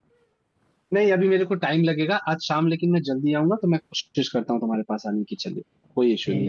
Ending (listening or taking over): taking over